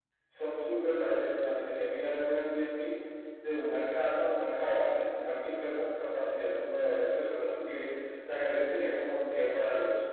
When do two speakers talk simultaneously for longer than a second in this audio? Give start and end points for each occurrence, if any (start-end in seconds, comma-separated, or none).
none